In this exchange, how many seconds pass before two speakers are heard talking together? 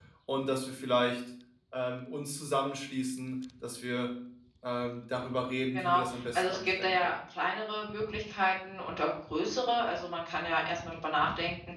5.7 s

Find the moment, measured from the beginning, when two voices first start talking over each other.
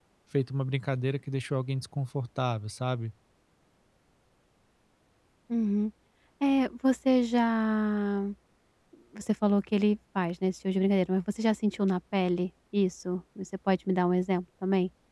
none

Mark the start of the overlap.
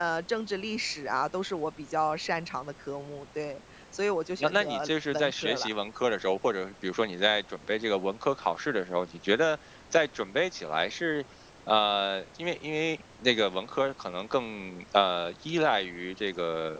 4.4 s

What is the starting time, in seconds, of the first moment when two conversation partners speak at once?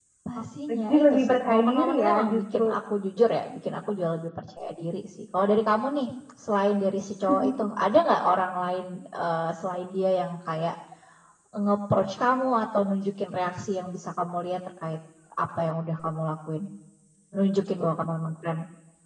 0.7 s

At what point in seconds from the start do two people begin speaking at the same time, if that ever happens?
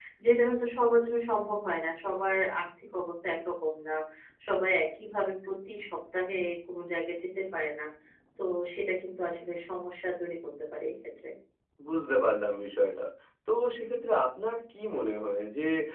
none

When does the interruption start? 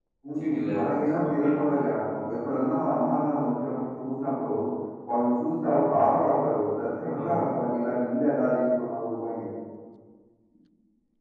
0.5 s

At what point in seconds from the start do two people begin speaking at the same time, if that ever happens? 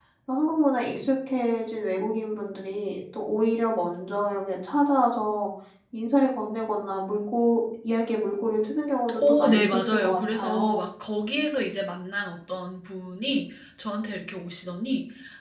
9.1 s

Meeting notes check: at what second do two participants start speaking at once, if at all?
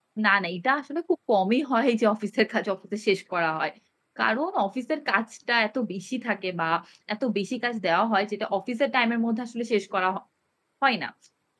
none

